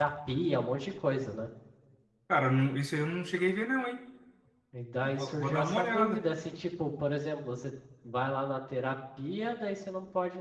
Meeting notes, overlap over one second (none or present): present